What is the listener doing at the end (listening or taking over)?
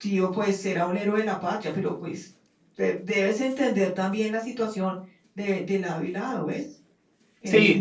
taking over